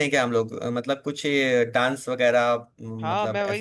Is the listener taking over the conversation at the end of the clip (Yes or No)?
Yes